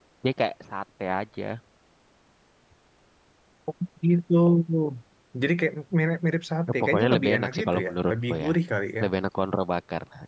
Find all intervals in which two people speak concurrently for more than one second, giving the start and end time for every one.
6.8-8.5

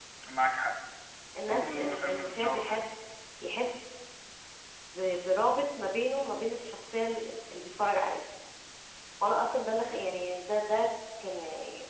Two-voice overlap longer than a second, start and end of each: 1.5-2.8

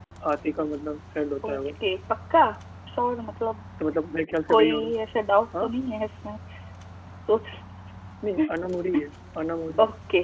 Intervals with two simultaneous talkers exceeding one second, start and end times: none

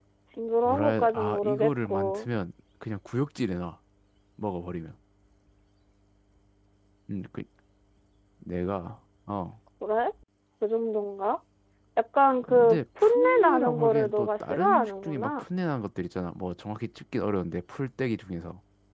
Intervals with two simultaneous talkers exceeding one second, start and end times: 0.7-2.3, 12.4-15.4

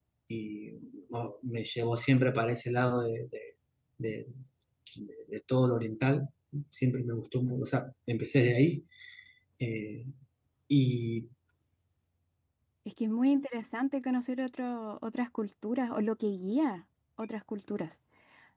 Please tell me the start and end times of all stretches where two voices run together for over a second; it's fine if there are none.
none

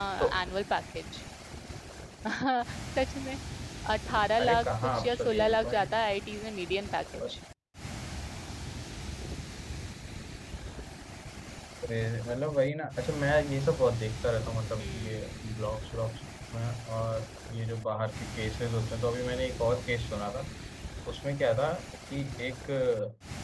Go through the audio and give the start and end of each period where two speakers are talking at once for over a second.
4.4-5.9

